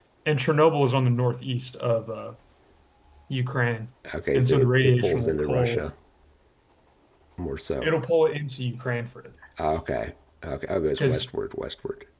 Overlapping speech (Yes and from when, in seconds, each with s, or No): Yes, from 4.3 s